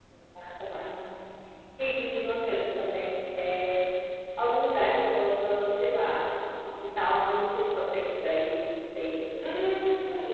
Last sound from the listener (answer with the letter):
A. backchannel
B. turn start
B